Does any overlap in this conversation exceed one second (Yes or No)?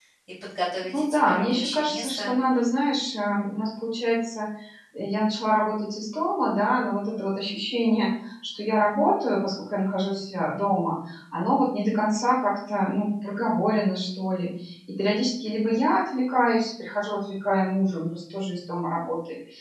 Yes